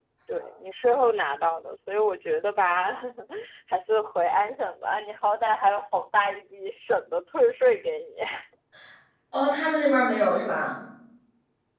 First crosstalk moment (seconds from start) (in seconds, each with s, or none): none